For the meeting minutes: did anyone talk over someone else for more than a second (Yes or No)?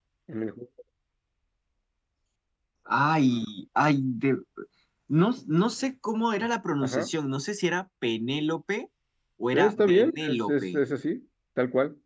Yes